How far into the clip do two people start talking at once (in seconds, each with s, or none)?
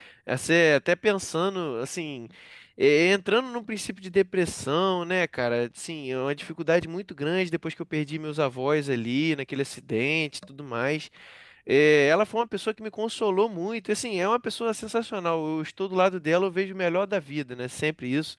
none